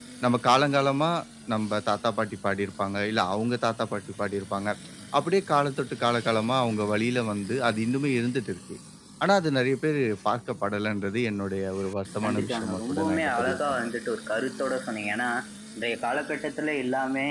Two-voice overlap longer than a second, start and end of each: 12.2-13.9

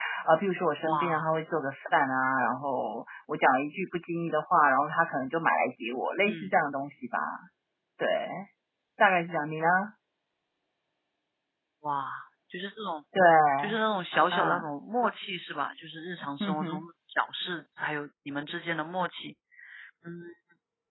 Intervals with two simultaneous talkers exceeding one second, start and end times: none

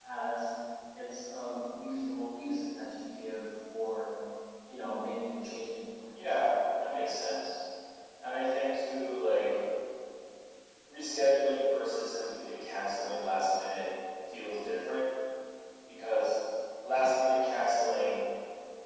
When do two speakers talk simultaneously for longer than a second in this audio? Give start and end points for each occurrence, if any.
none

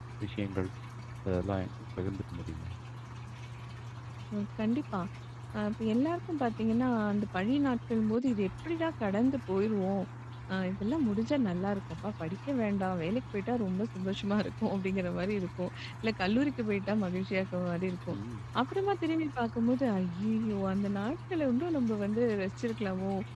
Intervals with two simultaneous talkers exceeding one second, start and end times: none

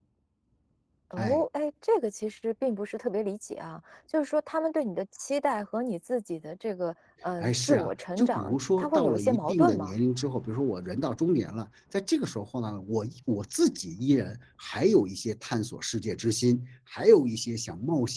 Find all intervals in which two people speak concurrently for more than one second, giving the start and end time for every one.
7.4-9.9

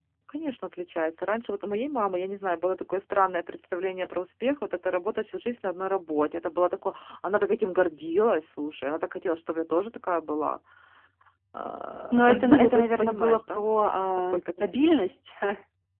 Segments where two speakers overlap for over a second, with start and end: 12.1-13.6

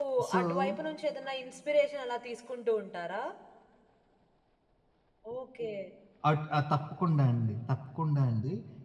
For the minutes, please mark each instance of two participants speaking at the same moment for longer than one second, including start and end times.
none

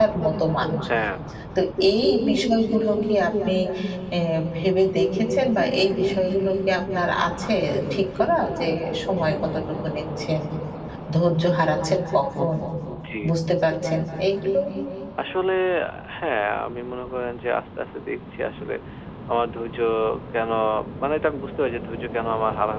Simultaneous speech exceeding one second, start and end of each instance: none

